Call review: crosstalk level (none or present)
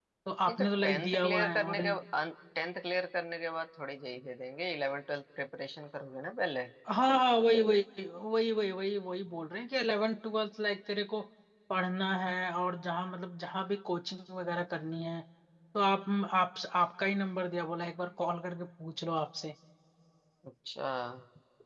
present